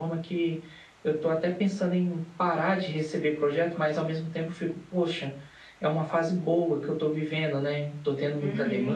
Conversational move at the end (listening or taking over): taking over